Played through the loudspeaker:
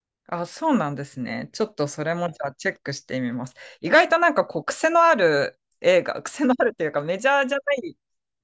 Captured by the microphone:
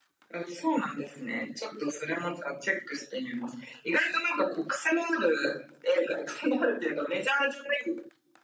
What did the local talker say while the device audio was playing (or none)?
none